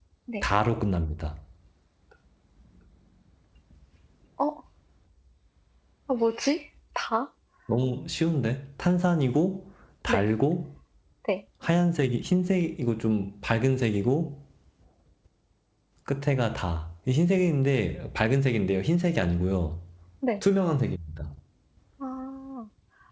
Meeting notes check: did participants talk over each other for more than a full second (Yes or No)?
No